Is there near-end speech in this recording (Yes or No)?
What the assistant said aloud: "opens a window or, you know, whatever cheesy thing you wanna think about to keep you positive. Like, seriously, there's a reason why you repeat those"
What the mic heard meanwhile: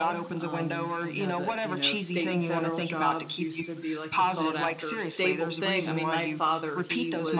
Yes